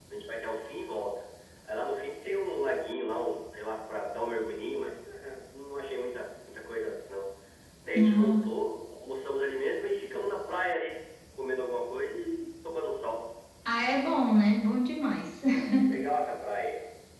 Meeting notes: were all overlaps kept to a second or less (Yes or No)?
Yes